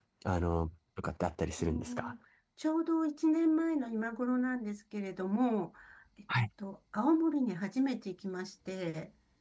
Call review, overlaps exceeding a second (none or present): none